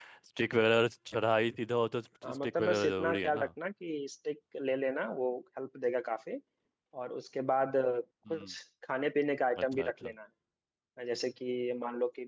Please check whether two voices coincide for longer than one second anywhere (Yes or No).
Yes